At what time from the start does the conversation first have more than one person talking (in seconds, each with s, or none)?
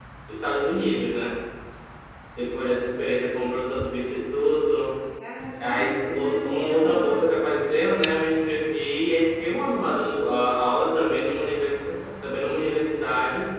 5.6 s